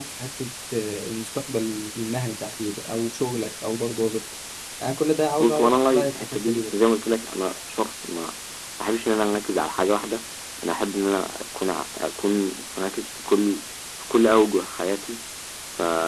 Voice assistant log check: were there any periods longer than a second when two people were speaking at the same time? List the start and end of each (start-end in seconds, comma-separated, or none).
5.4-6.6